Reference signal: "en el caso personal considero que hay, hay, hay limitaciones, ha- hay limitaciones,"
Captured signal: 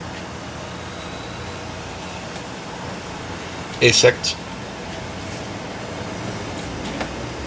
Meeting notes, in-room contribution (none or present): present